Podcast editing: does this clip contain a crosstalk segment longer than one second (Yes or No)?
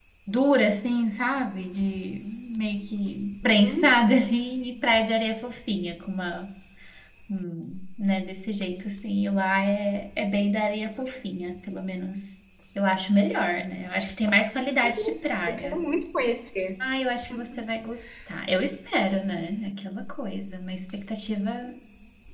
No